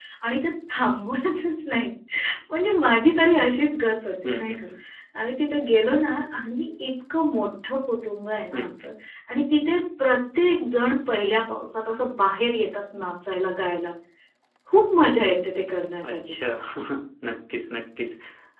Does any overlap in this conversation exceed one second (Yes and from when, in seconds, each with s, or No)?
No